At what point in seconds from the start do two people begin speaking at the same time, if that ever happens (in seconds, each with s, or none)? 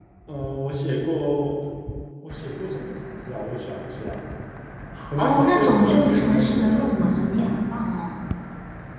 5.2 s